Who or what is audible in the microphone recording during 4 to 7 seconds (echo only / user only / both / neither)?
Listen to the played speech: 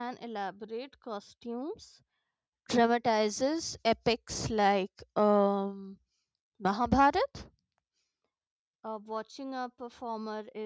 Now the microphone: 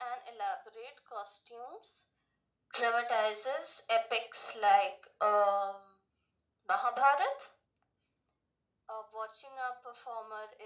echo only